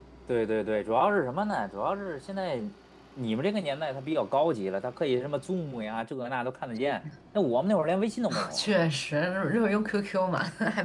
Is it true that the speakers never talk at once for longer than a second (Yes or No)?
Yes